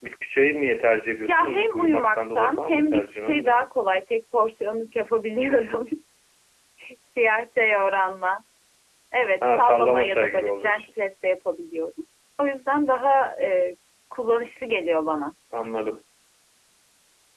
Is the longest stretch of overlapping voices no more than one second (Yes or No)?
No